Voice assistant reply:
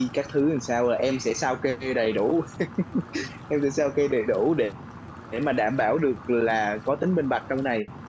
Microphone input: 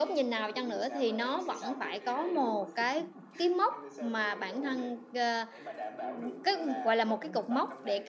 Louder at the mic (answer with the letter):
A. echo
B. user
B